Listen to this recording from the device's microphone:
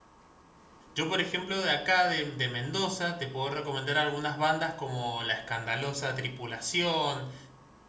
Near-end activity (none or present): present